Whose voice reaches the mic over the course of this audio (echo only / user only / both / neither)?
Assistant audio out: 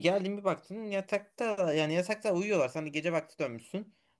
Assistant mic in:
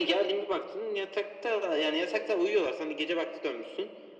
echo only